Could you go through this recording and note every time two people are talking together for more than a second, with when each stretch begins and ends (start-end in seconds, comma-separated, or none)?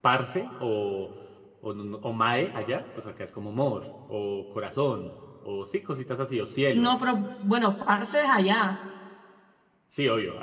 none